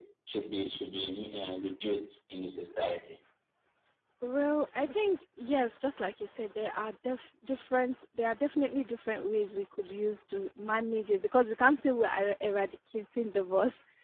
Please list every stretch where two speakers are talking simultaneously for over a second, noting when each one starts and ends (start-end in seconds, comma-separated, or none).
none